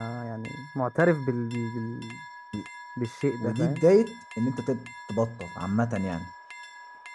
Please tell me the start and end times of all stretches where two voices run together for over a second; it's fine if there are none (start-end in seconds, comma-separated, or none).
none